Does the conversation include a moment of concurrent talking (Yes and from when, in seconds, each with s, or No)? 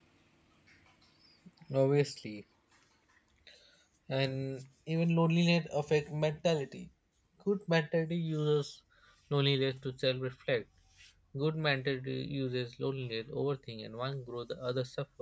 No